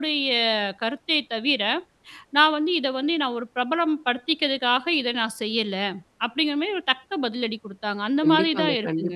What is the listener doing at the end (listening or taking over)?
taking over